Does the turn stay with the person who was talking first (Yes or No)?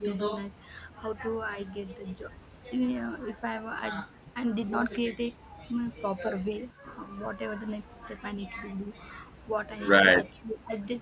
Yes